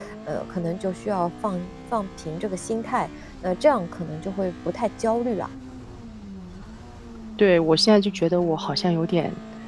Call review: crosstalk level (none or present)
none